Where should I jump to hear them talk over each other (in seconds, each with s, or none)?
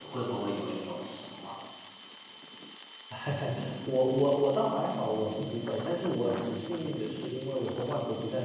none